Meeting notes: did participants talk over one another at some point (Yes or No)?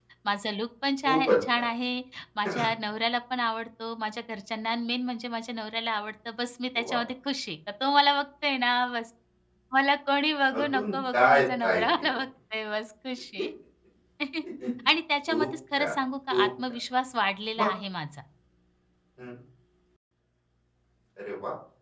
Yes